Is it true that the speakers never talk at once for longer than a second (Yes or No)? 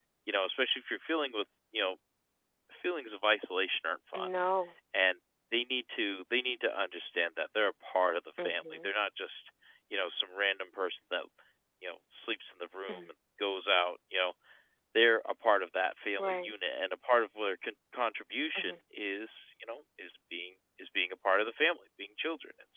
Yes